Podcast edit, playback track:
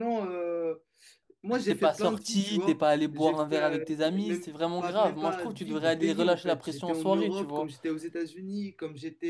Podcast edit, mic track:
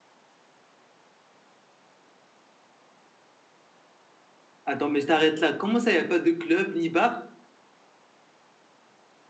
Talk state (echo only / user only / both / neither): user only